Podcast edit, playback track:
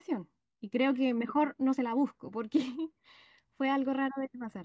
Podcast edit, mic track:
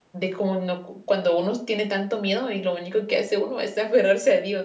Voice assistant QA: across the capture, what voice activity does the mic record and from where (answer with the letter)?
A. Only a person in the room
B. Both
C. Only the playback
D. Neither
A